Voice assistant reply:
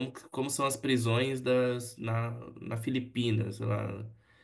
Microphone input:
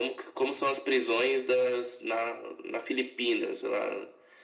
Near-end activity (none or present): none